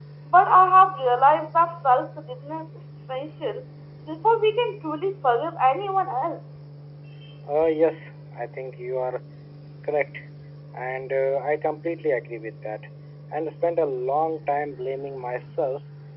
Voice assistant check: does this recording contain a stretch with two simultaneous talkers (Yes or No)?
No